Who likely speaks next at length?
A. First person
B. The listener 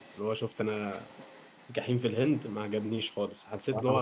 A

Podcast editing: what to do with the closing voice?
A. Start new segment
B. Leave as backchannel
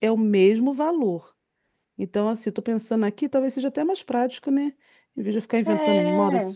B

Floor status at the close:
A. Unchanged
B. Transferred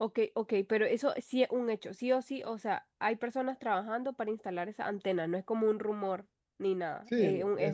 B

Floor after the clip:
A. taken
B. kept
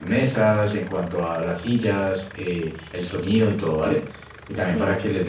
B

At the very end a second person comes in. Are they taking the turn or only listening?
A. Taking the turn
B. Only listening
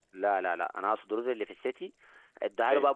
B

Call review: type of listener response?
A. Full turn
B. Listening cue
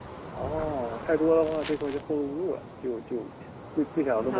A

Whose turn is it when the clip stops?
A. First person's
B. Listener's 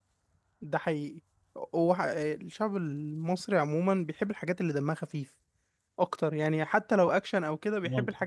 A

